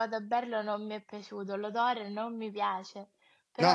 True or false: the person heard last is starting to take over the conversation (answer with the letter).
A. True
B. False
A